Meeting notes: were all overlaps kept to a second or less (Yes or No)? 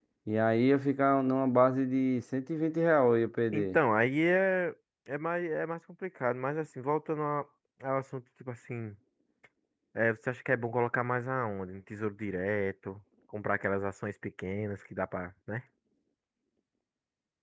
Yes